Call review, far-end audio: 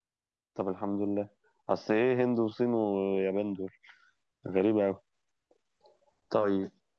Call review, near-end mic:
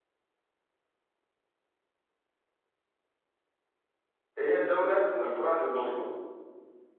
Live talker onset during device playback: 4 s

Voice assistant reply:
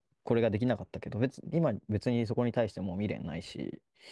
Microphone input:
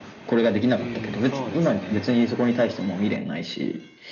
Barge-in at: 1 s

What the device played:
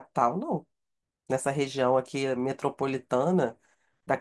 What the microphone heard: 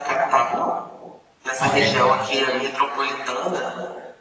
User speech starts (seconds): 2 s

